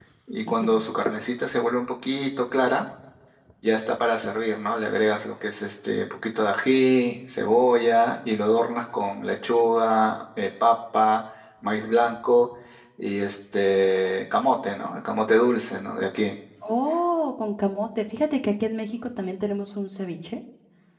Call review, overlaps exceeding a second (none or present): none